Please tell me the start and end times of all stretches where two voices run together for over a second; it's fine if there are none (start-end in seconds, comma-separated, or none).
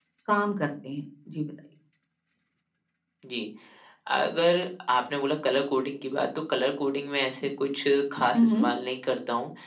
none